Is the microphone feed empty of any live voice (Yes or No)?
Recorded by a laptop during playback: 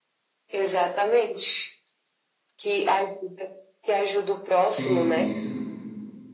No